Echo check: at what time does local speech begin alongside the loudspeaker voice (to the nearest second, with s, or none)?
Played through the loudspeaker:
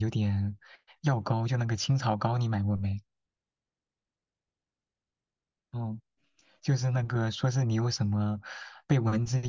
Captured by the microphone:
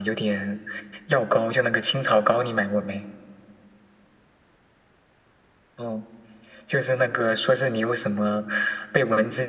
none